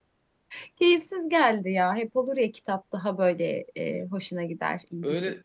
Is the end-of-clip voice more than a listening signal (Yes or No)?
Yes